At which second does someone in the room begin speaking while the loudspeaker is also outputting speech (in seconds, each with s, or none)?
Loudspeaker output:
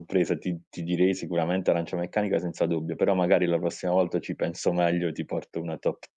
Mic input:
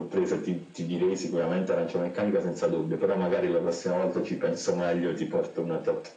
none